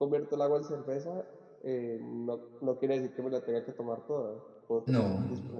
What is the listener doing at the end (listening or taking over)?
listening